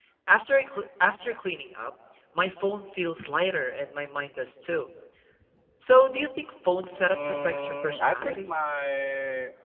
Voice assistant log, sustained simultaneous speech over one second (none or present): present